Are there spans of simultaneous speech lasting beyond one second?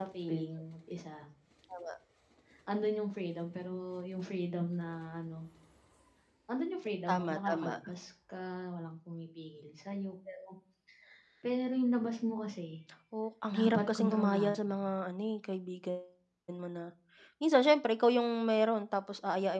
Yes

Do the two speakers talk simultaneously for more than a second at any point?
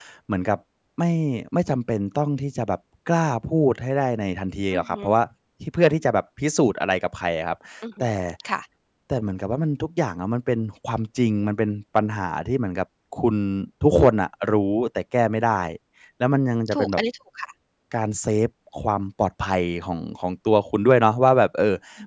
No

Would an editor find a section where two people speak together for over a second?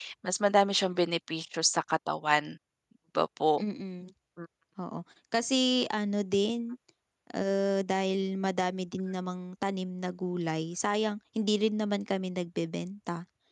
No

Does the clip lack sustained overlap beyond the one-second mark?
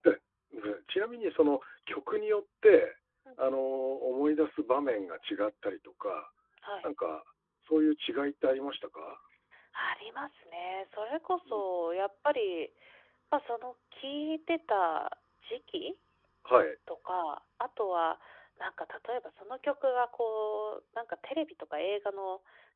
Yes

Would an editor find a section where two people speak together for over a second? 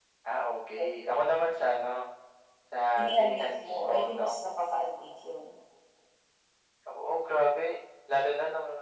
Yes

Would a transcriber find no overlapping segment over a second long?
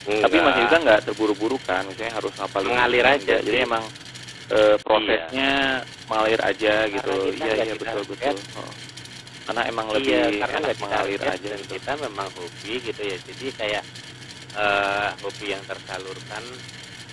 No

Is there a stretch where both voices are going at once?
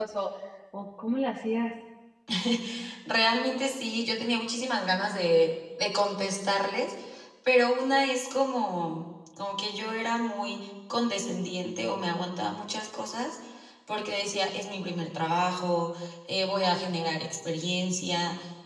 No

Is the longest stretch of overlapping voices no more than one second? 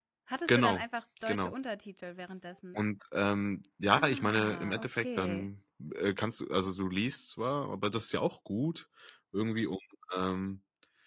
No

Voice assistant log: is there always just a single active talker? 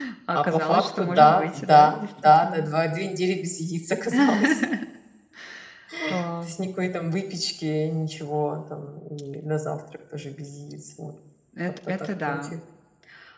No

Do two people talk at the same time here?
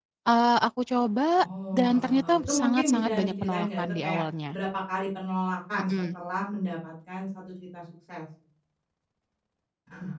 Yes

